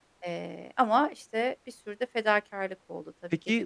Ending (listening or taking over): taking over